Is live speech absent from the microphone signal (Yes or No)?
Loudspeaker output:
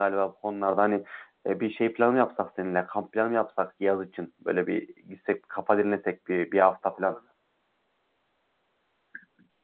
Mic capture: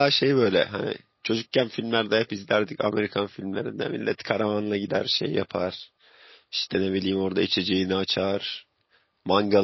No